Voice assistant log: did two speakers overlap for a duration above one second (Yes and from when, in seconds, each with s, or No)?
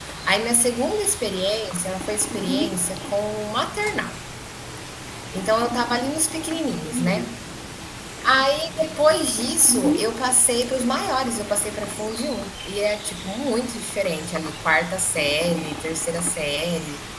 No